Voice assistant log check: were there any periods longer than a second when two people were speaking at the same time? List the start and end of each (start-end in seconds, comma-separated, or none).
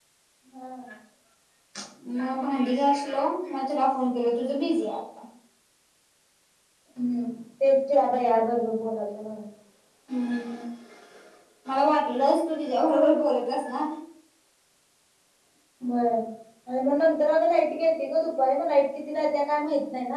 none